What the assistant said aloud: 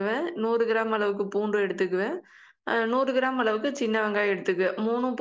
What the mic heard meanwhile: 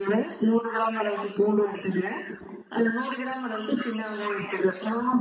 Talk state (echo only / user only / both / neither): echo only